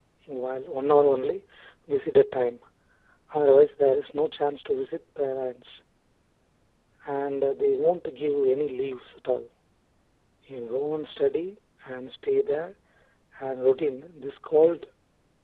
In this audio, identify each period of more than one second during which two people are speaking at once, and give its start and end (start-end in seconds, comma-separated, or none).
none